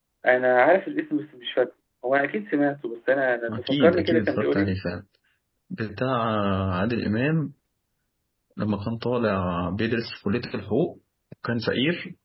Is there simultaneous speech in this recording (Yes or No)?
Yes